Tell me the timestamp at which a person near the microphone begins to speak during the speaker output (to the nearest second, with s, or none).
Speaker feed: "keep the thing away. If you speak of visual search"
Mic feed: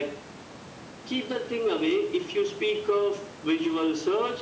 none